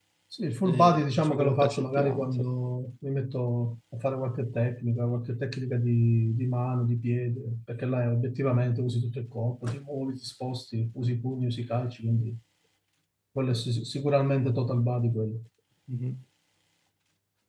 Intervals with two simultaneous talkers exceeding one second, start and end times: 0.6-2.4

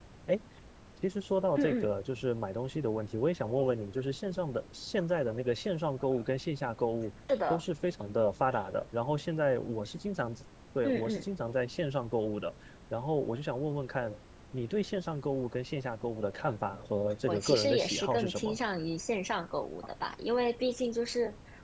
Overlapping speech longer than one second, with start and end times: 17.3-18.6

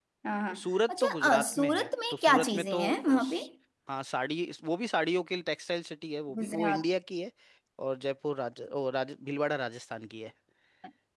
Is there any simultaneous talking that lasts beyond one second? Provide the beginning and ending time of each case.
0.6-3.4

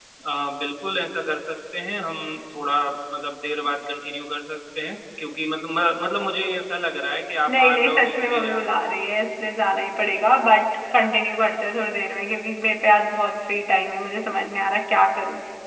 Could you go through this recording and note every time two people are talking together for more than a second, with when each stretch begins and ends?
7.5-8.7

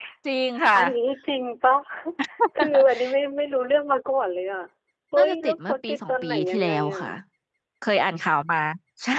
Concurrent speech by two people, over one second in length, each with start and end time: 5.2-7.0

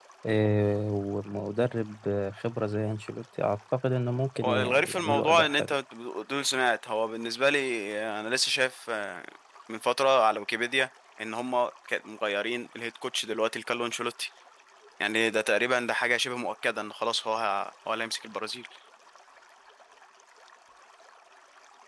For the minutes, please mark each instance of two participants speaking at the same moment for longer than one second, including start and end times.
4.4-5.7

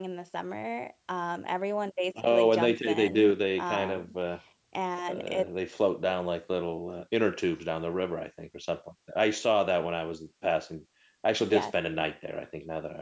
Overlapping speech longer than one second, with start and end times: 2.2-4.1

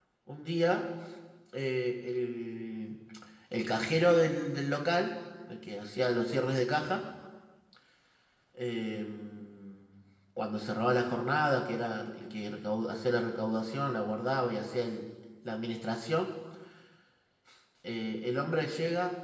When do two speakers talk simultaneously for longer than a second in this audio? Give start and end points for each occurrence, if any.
none

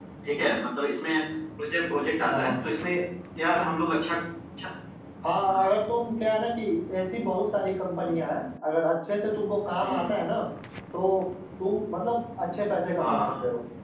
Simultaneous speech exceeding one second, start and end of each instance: none

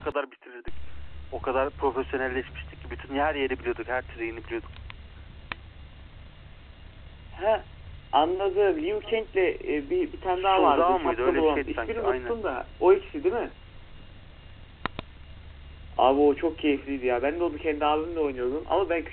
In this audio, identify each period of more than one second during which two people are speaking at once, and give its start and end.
10.3-12.3

